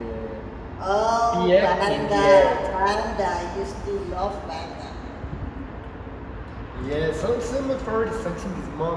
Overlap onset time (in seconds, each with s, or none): 1.3 s